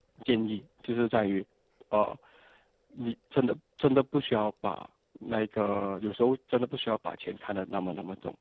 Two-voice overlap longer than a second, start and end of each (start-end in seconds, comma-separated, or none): none